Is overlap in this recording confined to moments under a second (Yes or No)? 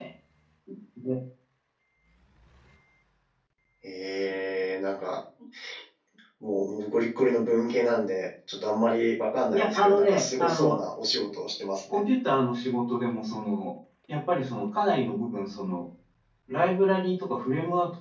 No